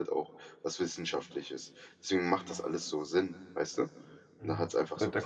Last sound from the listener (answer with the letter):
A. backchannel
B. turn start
B